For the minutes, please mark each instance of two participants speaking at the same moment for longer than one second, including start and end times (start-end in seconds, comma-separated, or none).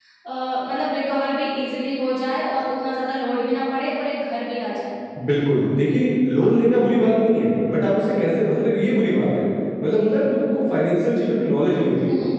none